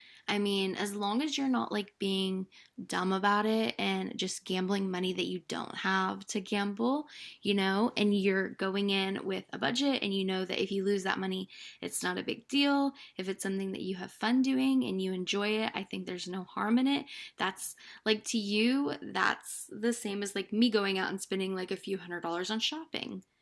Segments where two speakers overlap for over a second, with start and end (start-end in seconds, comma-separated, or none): none